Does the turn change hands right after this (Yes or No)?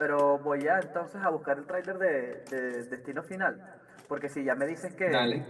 No